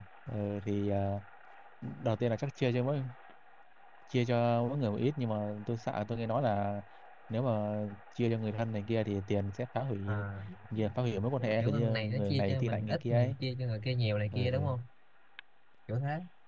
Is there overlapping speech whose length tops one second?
Yes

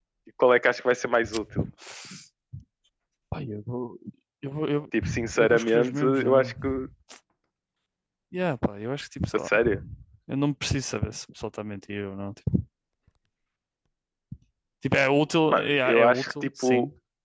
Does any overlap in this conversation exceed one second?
Yes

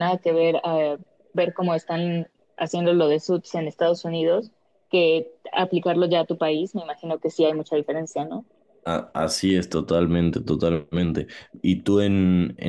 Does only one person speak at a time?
Yes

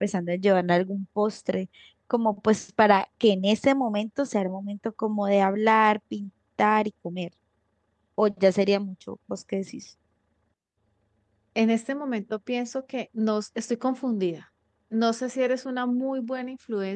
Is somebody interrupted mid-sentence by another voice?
No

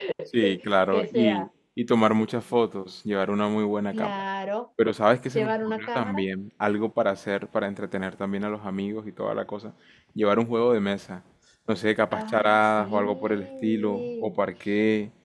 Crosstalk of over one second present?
Yes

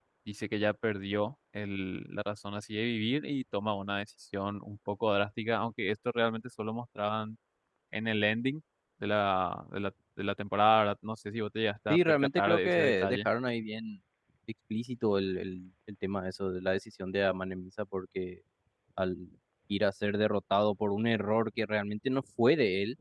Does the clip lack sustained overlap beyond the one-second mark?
No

